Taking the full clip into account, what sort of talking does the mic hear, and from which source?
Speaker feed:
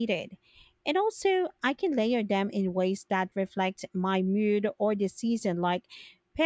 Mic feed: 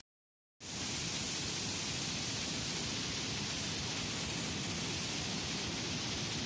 neither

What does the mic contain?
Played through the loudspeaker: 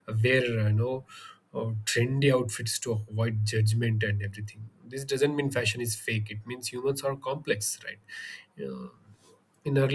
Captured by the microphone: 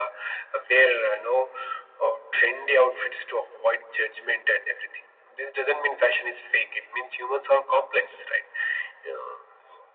echo only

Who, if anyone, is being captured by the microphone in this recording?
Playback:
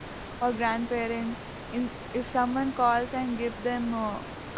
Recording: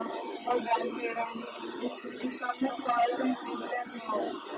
echo only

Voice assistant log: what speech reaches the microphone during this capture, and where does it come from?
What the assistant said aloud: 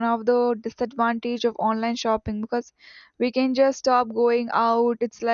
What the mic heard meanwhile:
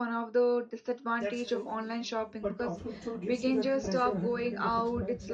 both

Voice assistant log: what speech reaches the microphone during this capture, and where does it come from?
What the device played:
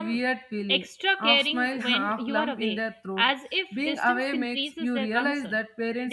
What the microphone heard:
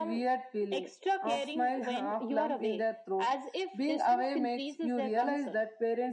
echo only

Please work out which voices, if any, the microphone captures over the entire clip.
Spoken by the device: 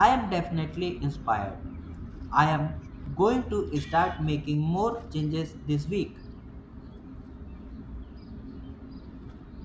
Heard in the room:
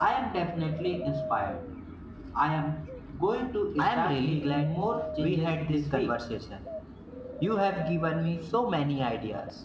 both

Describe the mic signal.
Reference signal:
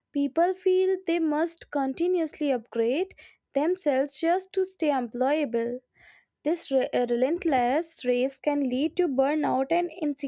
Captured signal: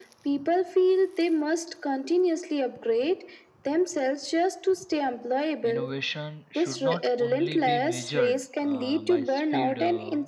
both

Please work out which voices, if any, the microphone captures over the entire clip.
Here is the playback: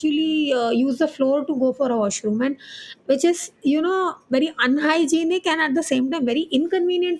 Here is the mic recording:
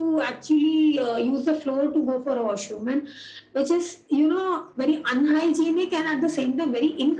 echo only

